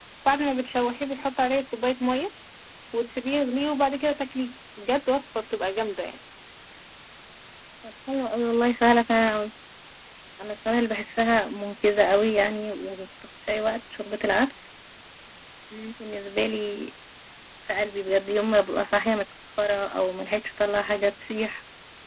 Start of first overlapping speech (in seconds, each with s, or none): none